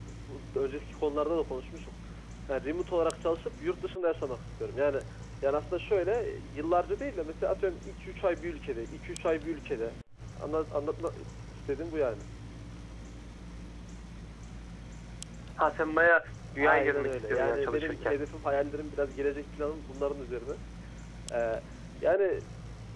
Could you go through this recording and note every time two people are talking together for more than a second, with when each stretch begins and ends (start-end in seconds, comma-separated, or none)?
16.6-18.1